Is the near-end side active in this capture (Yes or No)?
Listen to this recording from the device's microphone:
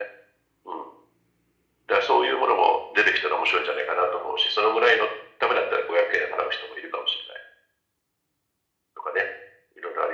No